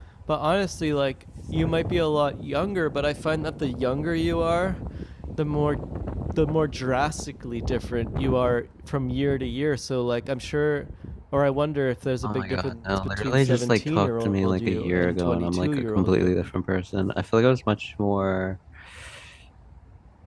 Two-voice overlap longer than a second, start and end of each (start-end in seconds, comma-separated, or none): 12.2-16.3